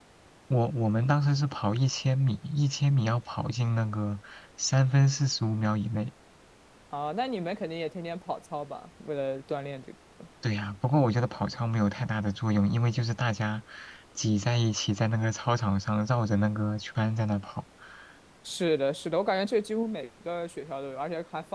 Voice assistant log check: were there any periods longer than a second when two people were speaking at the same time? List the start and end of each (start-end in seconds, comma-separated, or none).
none